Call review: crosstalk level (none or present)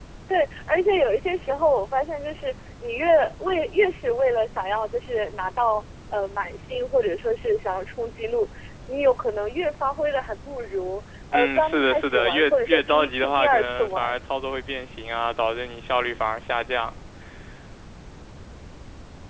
present